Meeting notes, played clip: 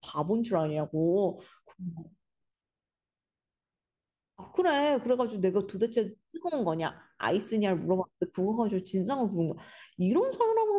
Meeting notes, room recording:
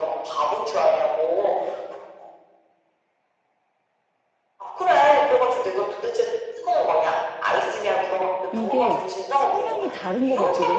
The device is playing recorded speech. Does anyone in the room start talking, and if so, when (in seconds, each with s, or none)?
8.5 s